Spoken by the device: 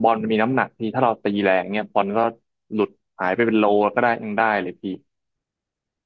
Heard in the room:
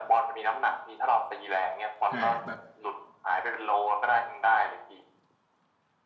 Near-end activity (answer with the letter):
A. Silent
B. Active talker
B